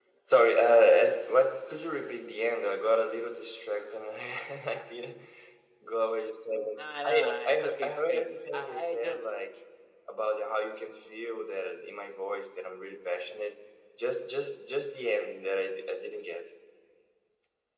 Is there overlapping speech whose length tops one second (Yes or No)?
Yes